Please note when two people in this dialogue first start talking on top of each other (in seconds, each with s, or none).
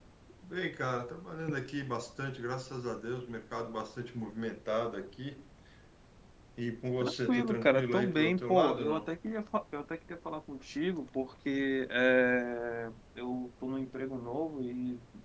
7.0 s